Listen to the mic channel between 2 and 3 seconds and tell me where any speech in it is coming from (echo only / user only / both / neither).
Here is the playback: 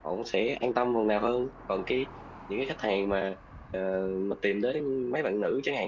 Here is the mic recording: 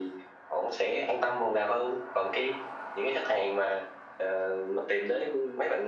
echo only